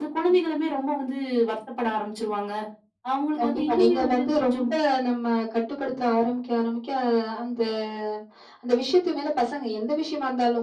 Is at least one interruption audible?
Yes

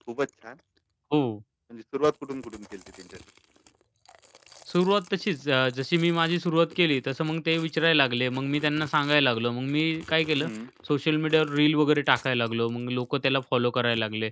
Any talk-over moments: No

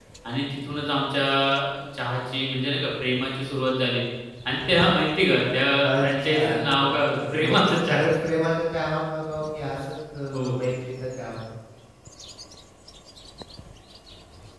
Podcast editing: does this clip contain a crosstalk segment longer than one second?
Yes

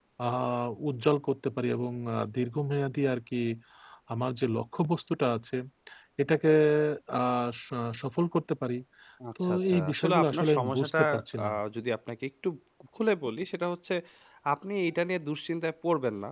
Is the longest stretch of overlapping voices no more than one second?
No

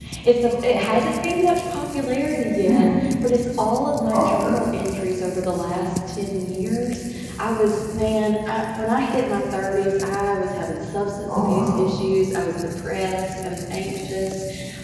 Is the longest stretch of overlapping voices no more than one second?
Yes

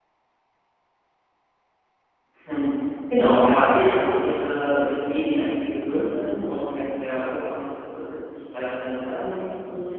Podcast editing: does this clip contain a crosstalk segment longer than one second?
No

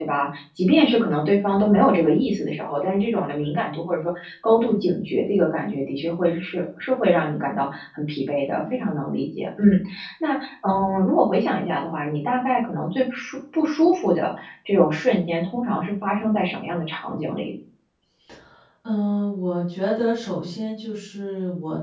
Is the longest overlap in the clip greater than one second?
No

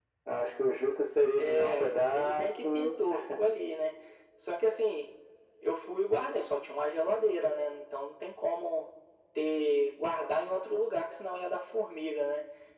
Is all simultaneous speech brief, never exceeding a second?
No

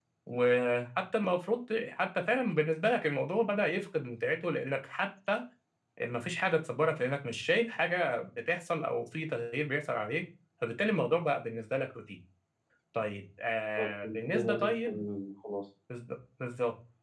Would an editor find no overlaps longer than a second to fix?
No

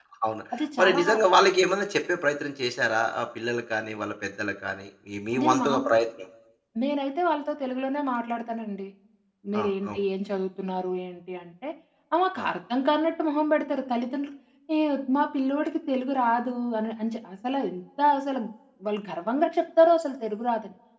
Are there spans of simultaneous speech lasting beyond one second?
No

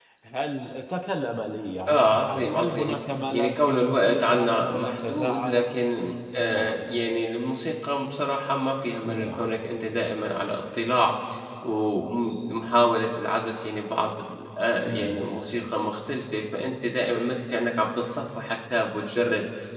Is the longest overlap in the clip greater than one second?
Yes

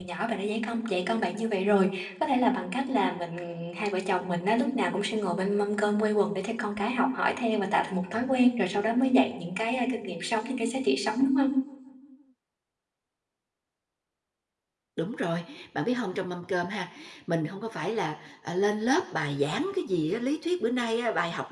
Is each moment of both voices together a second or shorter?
Yes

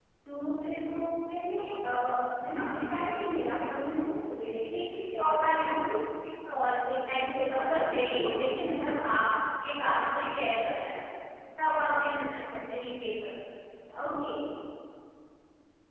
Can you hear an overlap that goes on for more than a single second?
Yes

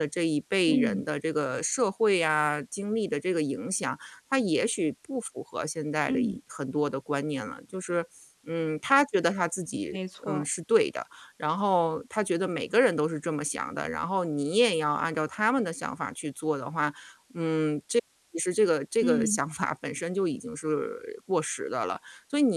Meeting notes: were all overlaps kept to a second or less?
Yes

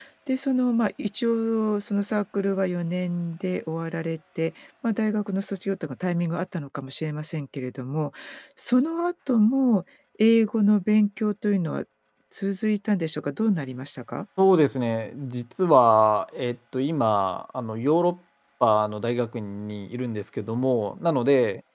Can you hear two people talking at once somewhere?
No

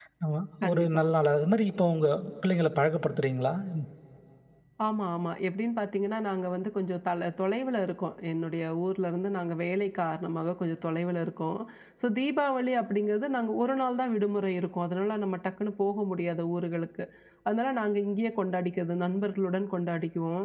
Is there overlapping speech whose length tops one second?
No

